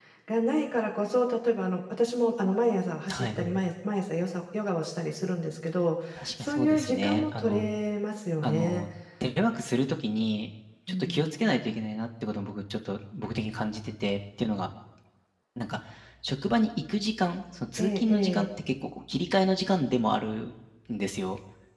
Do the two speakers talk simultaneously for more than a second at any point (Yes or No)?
Yes